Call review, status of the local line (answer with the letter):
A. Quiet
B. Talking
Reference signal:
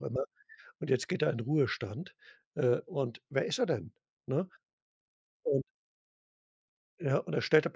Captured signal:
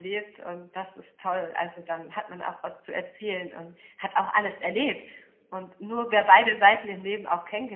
B